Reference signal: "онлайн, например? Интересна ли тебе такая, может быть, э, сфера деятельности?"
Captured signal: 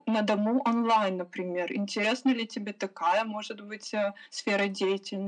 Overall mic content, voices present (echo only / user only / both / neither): echo only